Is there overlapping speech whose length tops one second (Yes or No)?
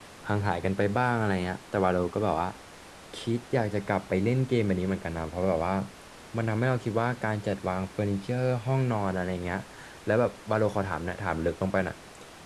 No